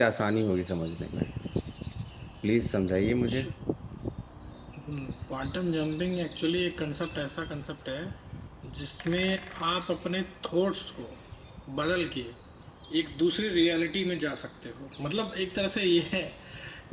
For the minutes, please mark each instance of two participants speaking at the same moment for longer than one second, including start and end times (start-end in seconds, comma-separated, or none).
none